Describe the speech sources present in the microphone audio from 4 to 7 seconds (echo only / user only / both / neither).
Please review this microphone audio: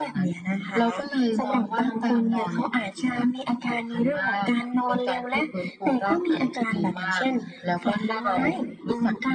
echo only